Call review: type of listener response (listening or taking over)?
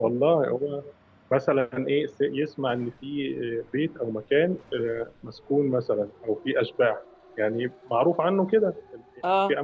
listening